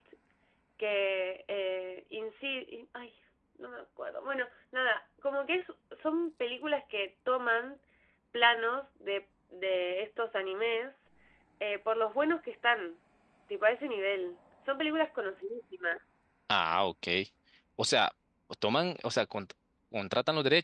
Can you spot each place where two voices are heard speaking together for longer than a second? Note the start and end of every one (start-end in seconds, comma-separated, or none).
none